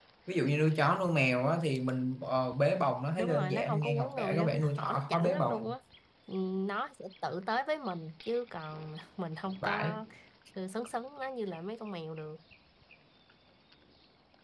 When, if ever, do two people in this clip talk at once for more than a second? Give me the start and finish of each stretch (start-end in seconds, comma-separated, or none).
3.2-5.8